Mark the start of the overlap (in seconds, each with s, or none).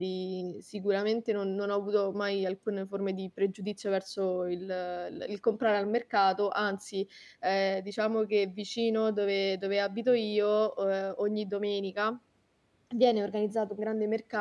none